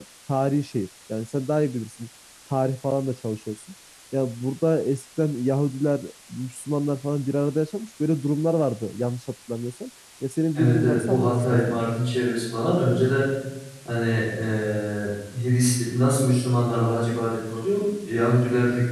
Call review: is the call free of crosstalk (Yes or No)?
No